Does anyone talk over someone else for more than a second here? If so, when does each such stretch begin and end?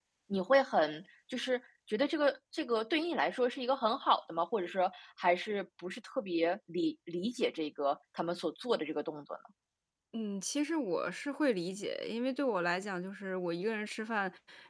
none

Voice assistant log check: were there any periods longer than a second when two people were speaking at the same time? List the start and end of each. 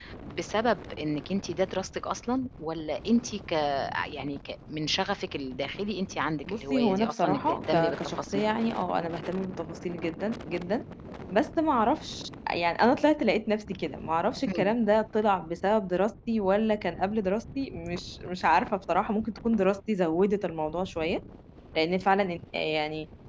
6.5-8.4

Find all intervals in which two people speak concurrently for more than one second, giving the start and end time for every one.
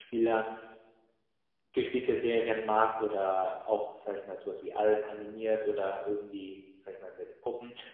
none

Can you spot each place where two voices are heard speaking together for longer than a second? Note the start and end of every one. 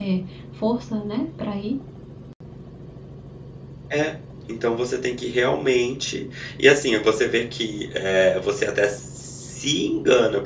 none

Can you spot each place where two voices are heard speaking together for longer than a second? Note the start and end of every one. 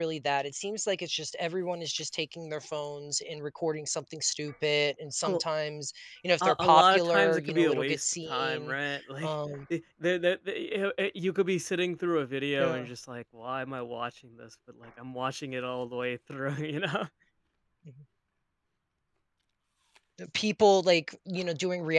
6.4-8.8

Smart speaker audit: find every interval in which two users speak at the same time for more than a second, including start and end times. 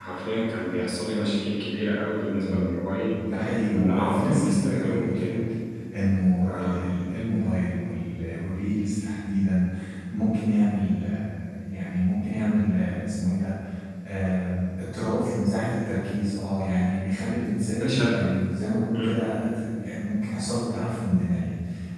3.7-5.4

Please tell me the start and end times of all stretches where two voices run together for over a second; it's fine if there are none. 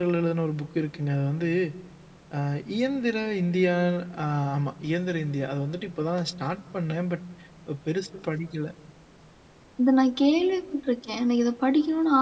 none

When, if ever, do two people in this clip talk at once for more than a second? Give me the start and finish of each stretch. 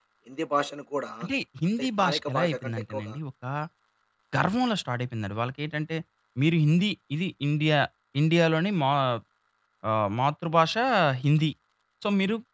1.8-3.2

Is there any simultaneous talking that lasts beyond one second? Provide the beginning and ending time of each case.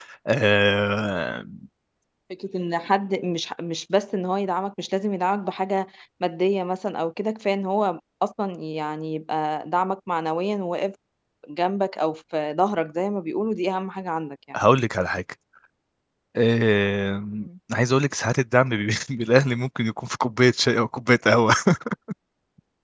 none

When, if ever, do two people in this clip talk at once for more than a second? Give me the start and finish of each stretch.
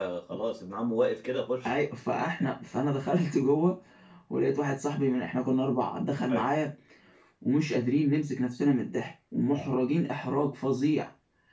none

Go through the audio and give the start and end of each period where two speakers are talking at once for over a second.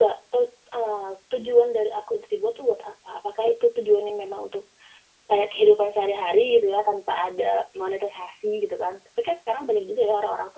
none

